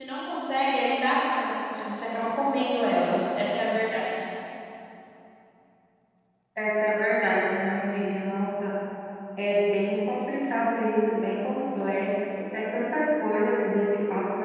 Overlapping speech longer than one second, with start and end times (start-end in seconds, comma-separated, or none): none